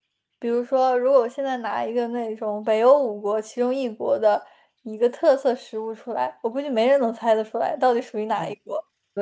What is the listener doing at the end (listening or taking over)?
taking over